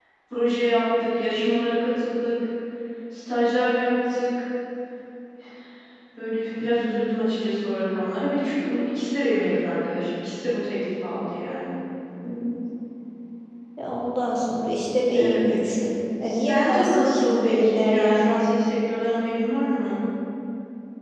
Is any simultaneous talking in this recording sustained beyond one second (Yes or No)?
Yes